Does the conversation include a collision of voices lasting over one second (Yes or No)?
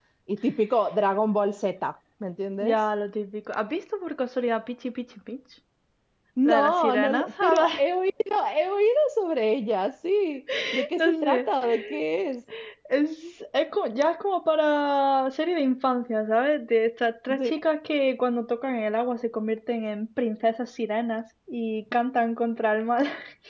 Yes